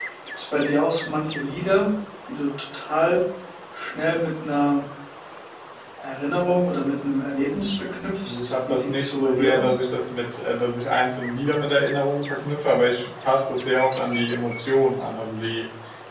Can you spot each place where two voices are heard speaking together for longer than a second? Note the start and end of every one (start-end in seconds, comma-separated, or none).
8.2-9.8